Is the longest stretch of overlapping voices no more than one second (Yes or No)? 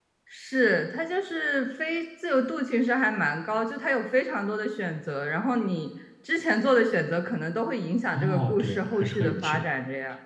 No